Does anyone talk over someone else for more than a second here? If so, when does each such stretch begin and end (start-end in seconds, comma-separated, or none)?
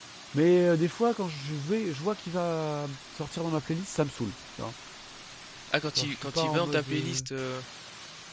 5.9-7.2